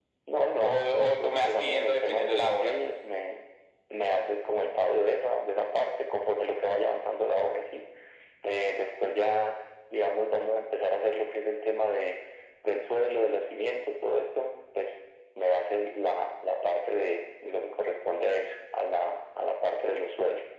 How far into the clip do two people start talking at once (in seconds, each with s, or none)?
0.6 s